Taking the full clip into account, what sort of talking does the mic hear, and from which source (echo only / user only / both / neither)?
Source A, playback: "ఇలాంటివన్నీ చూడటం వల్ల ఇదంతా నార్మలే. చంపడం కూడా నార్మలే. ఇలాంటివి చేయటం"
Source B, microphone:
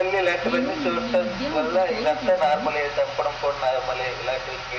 both